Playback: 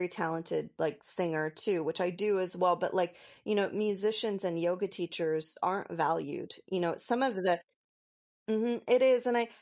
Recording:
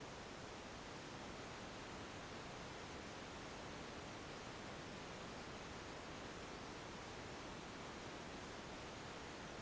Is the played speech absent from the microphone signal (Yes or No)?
Yes